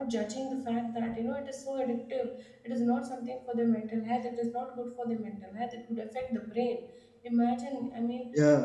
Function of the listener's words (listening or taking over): listening